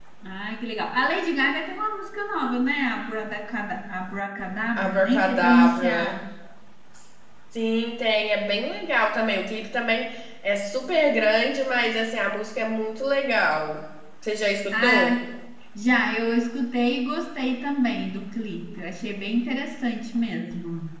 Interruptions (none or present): present